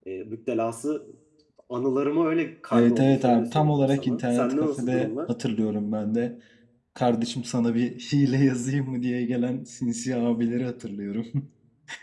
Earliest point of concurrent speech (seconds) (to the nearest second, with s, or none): 3 s